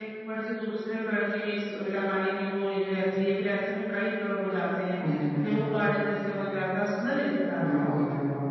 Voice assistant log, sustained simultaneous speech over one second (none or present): none